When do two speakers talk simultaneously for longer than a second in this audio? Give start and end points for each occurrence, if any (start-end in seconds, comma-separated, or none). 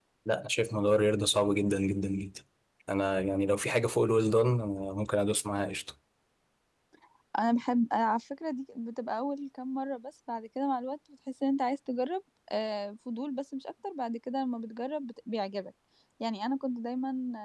none